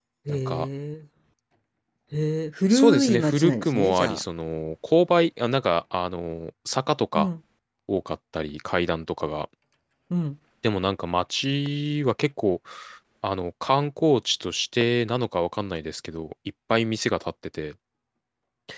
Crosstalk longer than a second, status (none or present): present